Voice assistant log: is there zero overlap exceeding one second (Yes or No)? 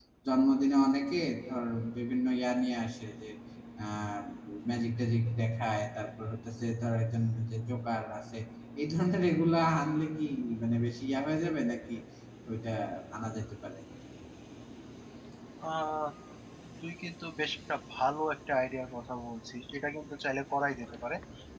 Yes